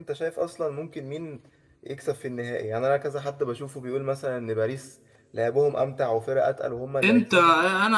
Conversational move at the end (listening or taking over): taking over